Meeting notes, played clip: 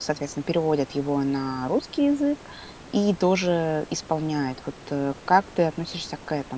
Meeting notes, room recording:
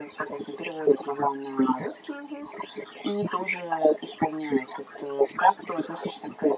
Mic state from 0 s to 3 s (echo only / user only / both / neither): echo only